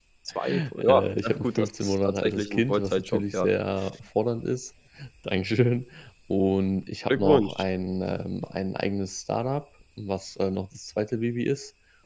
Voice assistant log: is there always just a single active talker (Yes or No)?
No